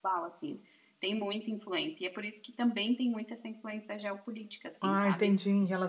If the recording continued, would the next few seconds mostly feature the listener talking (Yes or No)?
Yes